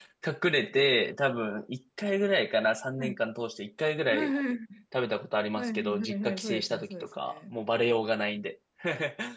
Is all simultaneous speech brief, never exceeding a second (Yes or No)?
No